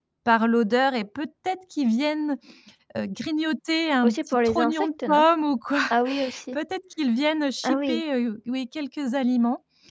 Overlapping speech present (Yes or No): Yes